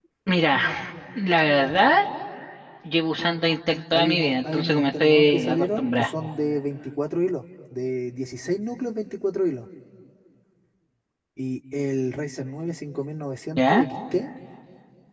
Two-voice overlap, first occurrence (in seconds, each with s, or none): 3.9 s